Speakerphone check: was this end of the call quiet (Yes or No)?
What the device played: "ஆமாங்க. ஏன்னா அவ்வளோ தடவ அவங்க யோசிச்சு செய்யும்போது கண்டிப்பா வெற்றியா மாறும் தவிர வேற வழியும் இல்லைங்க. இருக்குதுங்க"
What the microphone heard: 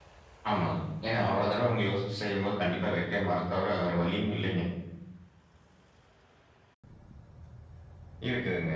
Yes